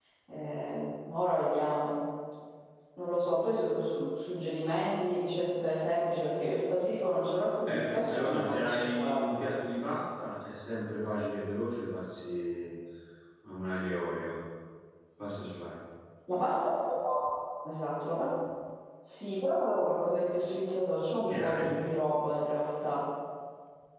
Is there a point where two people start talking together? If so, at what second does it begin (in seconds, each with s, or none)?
7.6 s